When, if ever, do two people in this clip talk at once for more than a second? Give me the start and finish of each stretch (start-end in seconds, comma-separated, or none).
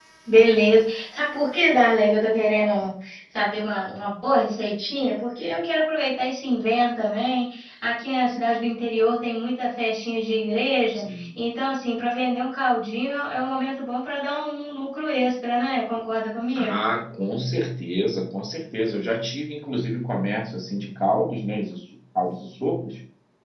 none